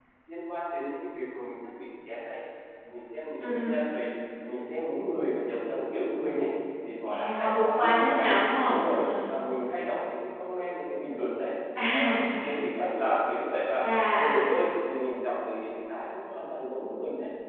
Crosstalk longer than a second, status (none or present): present